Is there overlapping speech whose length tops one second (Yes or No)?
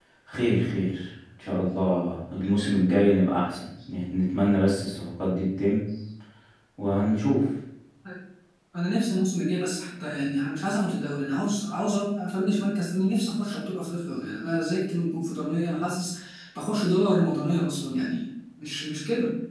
No